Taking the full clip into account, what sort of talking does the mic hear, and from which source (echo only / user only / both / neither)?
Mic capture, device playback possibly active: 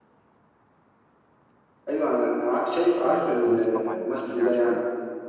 both